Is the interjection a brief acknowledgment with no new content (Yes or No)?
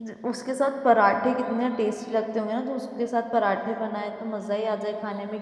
Yes